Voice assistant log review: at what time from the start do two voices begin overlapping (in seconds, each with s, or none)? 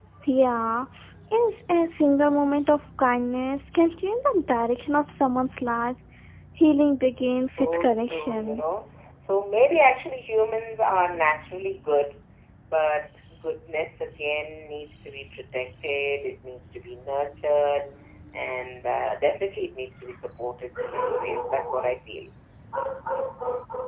7.5 s